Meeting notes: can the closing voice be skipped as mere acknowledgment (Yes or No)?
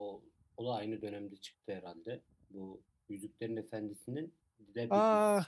No